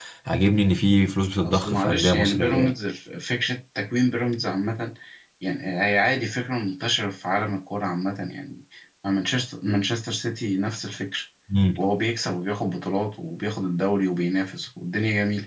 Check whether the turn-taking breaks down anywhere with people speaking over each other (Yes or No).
Yes